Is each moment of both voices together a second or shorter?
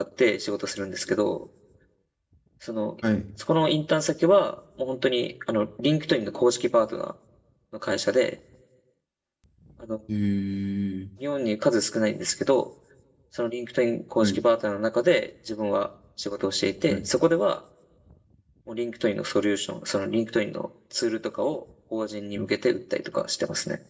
Yes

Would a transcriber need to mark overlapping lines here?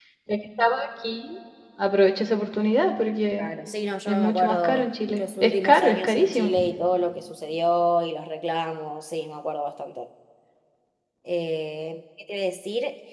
Yes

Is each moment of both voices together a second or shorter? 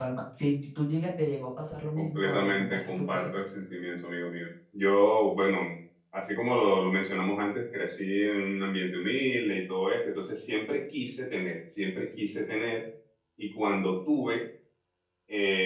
No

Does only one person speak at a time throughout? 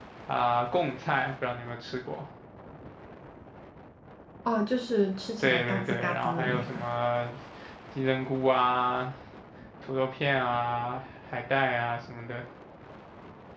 No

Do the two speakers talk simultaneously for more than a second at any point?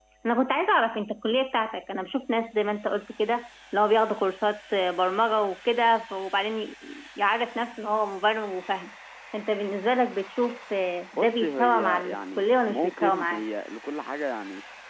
Yes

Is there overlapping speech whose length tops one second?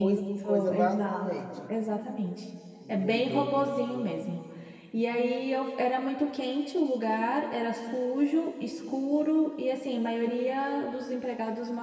Yes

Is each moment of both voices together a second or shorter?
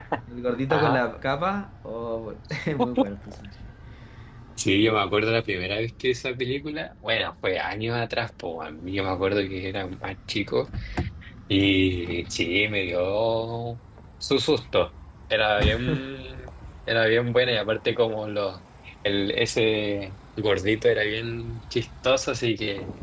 Yes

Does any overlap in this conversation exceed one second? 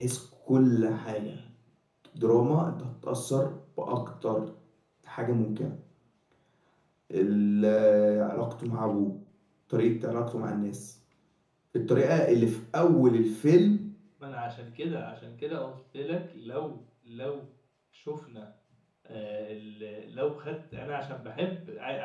No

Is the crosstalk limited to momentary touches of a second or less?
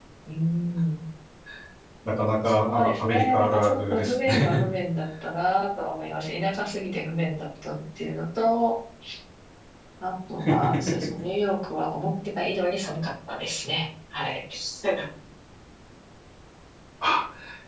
No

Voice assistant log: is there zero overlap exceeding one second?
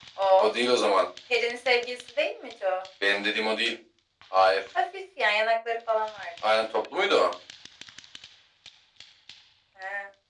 Yes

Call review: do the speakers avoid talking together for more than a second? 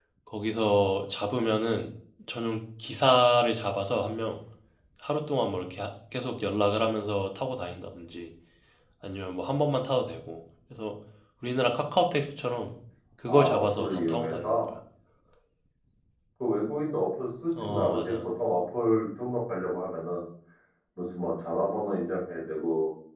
No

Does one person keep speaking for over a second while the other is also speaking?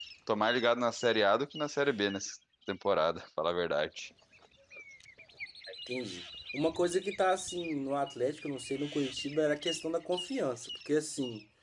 No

